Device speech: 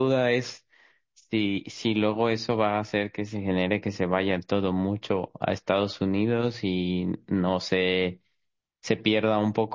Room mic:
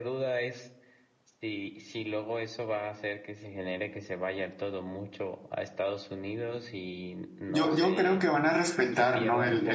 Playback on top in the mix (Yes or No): No